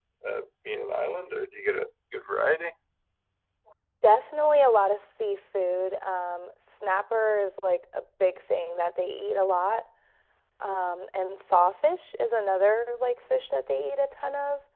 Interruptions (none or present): none